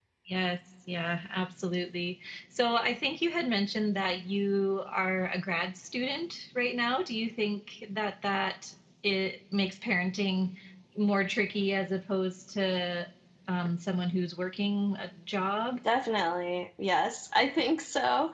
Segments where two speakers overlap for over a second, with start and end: none

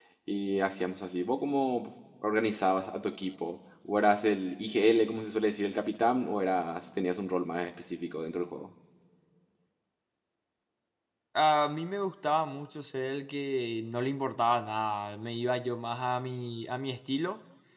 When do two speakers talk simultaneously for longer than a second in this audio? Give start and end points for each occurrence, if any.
none

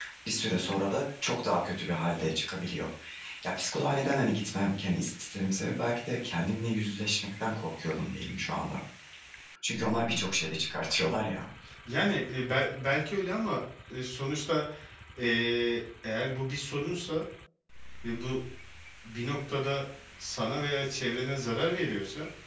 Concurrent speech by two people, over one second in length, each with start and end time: none

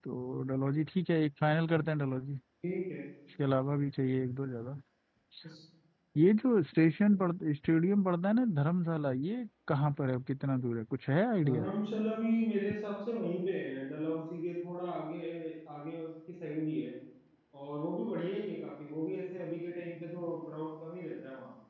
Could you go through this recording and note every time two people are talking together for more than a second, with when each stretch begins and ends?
none

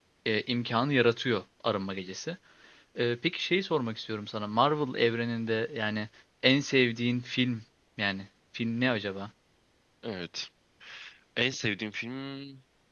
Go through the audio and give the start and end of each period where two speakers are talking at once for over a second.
none

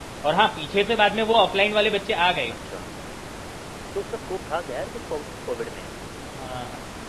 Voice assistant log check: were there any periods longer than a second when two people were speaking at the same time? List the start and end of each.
none

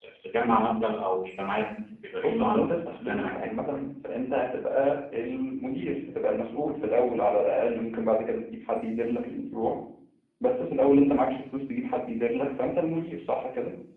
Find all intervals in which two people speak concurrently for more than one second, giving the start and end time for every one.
2.2-3.5

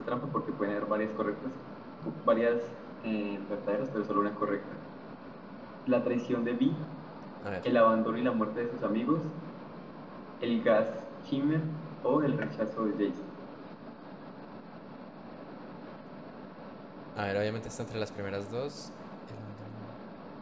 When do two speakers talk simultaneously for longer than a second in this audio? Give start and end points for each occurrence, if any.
none

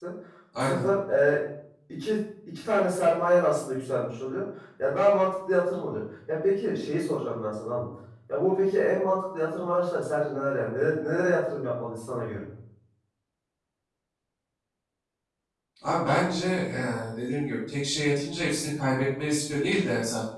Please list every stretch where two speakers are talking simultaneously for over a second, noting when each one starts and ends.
none

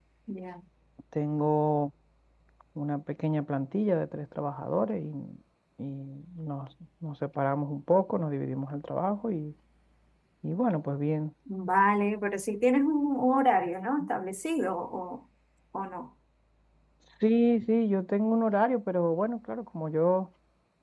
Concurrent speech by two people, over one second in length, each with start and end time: none

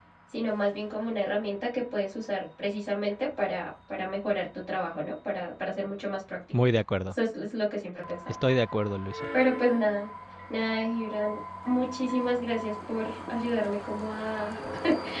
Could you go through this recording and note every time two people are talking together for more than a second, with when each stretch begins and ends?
none

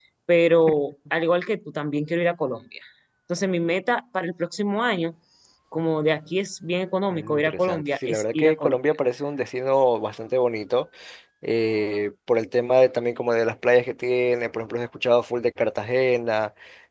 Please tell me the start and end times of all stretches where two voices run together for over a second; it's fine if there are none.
7.1-8.8

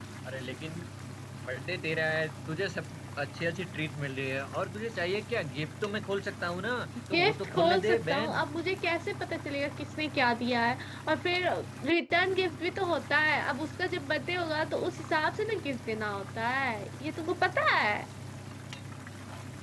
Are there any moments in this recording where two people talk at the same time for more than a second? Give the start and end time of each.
7.1-8.4

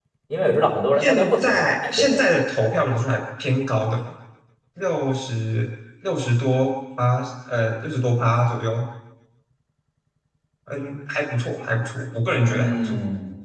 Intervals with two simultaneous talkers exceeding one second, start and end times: 1.0-2.2

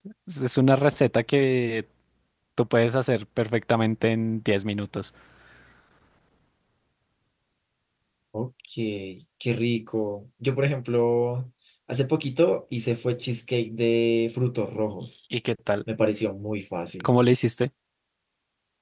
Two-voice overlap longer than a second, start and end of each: none

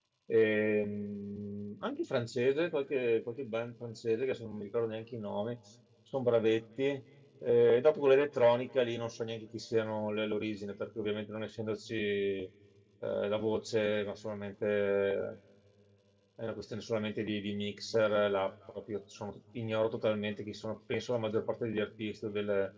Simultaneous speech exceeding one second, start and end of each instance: none

